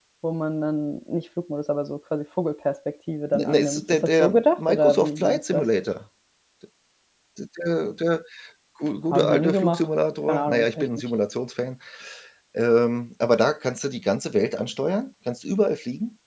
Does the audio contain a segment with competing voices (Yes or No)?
Yes